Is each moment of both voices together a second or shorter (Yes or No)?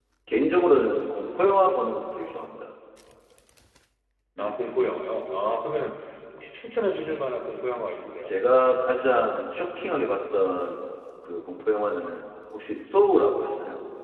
Yes